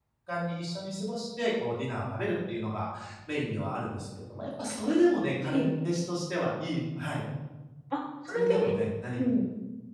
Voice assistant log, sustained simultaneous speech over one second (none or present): none